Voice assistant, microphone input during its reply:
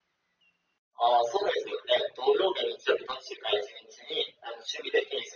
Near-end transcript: none

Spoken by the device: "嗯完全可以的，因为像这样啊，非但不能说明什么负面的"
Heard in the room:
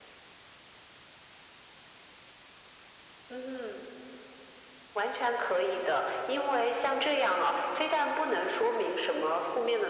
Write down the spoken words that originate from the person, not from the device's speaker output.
none

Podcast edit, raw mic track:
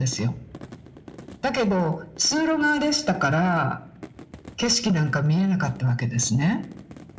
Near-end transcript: none

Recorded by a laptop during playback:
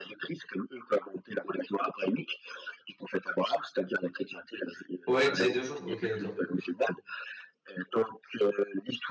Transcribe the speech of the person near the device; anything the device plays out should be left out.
Ouais, une dizaine de jours, OK, d'accord.

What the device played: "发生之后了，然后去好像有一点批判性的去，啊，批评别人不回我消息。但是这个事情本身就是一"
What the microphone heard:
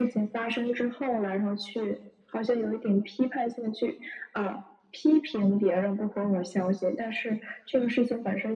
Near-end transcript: none

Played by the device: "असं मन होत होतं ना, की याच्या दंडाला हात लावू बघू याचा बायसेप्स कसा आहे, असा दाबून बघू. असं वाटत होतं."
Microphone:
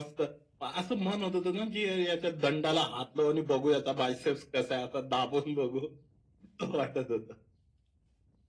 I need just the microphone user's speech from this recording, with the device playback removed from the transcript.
none

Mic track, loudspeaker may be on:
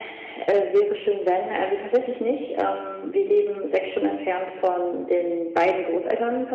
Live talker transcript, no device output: none

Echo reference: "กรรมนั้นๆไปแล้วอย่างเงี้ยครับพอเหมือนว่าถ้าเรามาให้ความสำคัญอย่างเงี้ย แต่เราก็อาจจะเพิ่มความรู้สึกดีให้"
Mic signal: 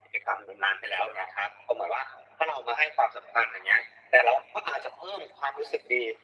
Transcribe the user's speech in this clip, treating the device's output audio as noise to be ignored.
none

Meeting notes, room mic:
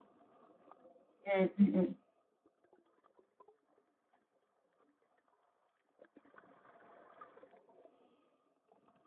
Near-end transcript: Mh, mh-mh.

